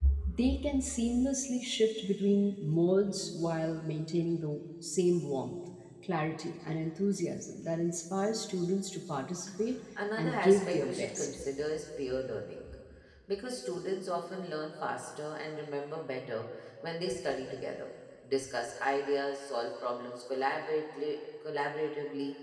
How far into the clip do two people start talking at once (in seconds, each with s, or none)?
10.2 s